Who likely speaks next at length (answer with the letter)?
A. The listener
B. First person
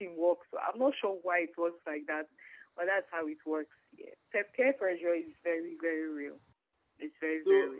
A